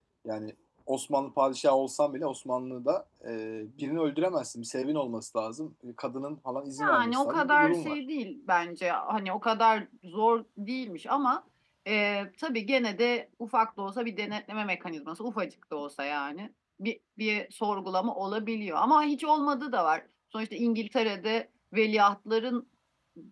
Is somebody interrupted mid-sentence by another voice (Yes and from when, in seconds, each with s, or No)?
Yes, from 6.8 s